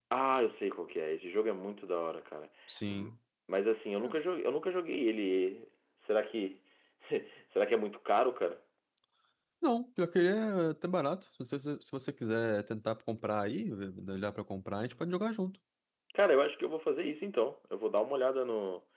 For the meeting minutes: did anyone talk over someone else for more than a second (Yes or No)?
No